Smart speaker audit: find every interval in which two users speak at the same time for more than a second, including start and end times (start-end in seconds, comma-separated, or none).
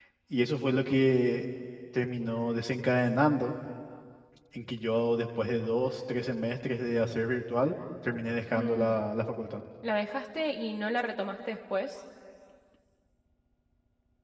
none